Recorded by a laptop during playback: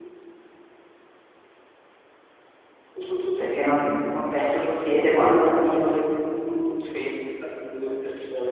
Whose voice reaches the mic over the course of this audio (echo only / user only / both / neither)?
both